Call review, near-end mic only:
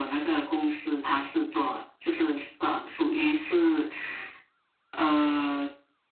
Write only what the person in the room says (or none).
none